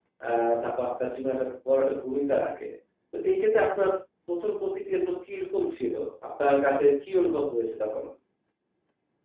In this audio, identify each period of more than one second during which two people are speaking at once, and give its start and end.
none

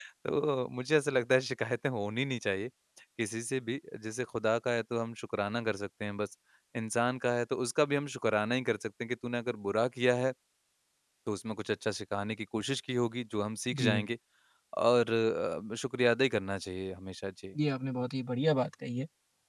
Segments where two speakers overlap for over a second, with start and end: none

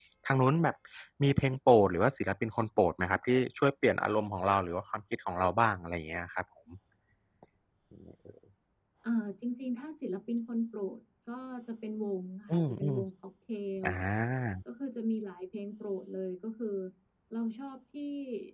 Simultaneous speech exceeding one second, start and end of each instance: none

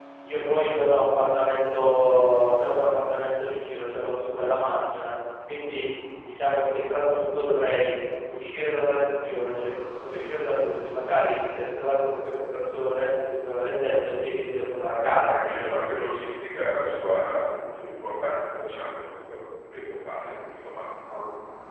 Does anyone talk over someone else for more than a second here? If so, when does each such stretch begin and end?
none

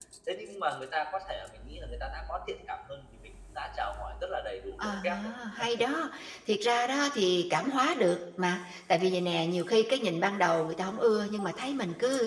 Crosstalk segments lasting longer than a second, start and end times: none

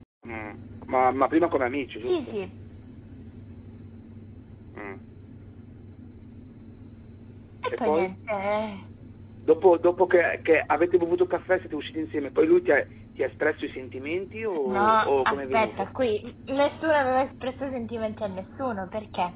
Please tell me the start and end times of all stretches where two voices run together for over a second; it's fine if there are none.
14.6-15.9

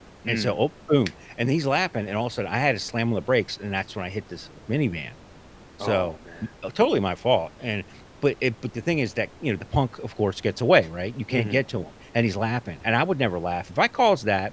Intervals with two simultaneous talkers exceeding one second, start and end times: none

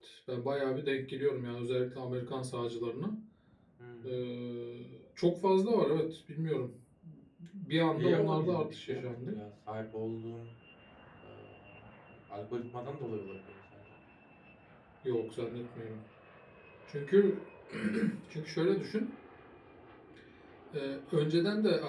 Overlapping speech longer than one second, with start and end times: 8.0-9.3

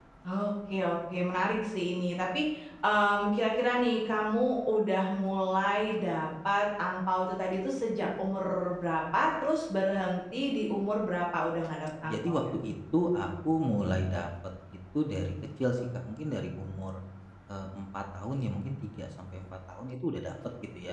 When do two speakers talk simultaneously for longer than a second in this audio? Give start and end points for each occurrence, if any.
none

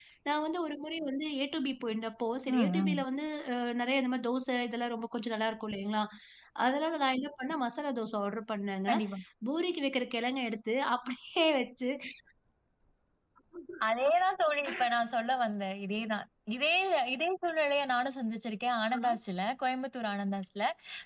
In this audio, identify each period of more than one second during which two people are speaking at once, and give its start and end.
none

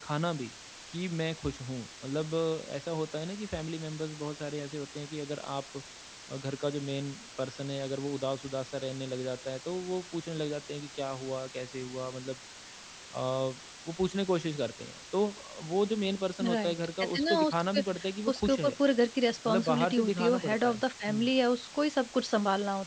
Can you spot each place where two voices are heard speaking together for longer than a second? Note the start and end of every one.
16.4-17.8, 19.5-21.3

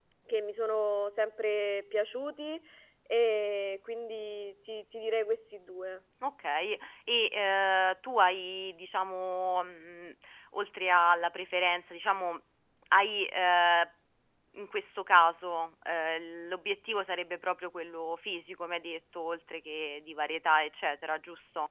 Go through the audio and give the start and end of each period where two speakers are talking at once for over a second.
none

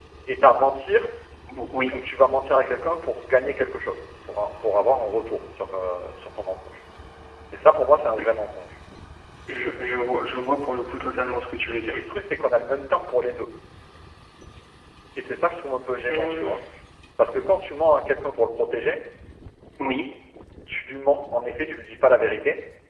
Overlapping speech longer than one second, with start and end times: none

